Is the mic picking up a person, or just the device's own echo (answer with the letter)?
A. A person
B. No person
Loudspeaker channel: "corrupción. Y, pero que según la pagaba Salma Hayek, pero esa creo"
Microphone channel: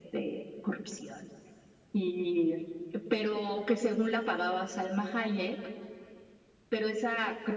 B